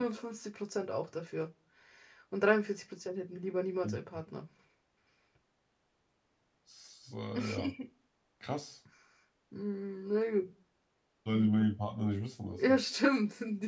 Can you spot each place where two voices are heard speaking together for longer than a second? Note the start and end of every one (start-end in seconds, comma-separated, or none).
none